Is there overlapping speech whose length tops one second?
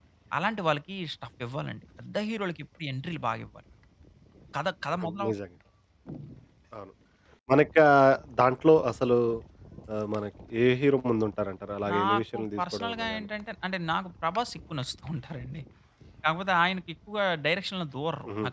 Yes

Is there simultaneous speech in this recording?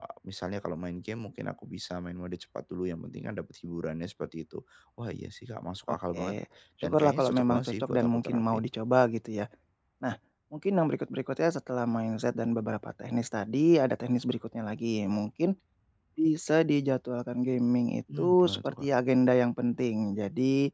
Yes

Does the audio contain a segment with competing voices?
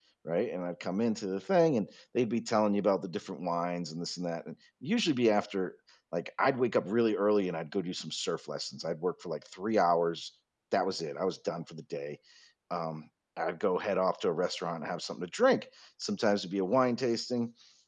No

